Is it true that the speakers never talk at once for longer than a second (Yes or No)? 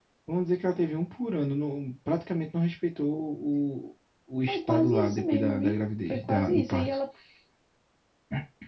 No